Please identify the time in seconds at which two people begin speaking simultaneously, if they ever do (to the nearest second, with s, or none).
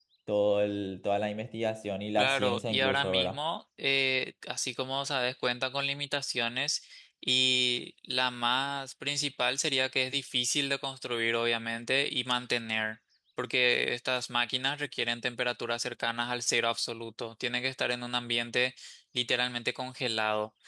2 s